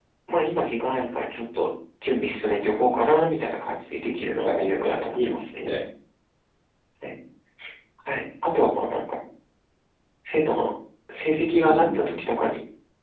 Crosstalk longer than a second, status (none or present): present